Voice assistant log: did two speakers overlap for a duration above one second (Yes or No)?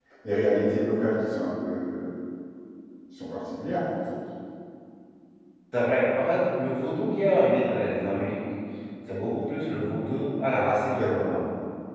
No